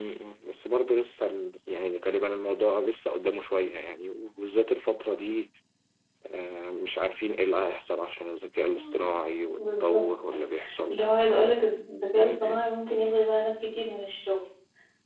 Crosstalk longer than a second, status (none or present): none